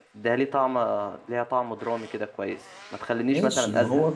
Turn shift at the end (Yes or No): Yes